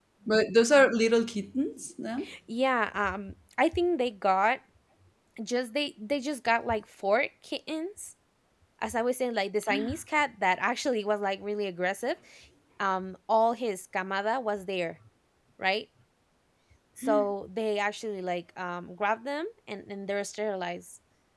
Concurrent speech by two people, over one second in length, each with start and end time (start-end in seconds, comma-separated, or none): none